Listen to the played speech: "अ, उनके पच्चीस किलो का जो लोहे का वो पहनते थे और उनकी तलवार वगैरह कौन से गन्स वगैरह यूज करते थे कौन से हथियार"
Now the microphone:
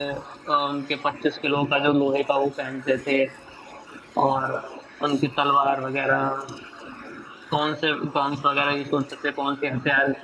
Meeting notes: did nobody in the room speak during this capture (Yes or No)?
Yes